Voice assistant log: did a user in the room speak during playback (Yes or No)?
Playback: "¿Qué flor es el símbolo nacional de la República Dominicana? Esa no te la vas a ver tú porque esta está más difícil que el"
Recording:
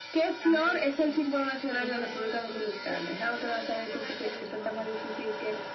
Yes